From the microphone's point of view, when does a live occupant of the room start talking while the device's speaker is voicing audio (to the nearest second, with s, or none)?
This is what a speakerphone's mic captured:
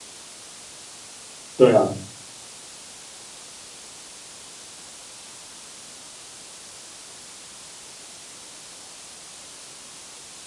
2 s